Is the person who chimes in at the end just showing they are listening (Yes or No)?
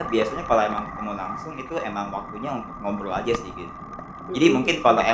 Yes